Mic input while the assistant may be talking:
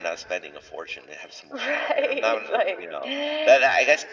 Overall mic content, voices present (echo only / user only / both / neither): echo only